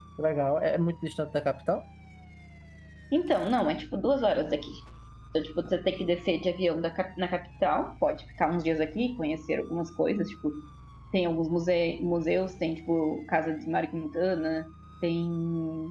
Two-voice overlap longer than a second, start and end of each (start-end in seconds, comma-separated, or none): none